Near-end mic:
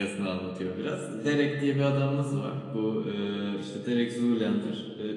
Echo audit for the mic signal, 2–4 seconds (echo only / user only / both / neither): user only